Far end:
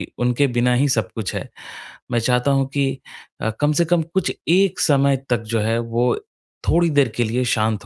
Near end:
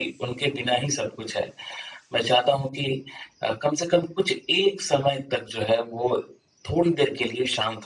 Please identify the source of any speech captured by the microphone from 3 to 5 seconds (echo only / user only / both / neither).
echo only